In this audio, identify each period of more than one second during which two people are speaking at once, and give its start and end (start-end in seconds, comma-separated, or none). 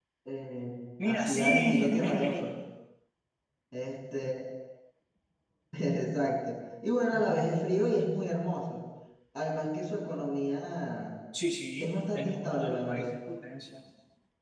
1.0-2.5, 11.8-13.2